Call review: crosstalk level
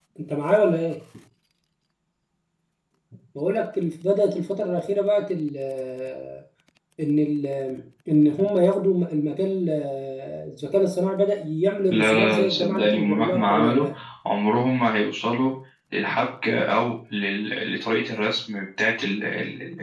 present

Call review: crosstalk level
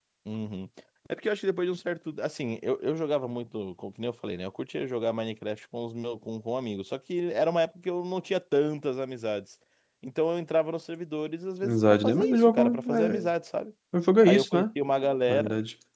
present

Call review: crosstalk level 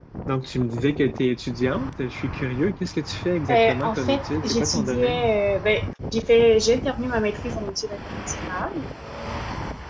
present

